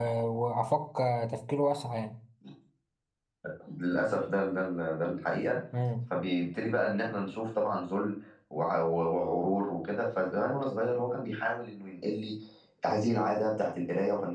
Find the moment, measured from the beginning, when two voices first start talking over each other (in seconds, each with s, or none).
none